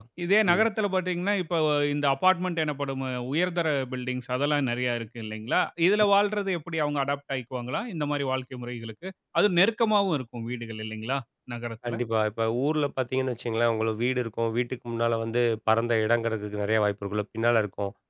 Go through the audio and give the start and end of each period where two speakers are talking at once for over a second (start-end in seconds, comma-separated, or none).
none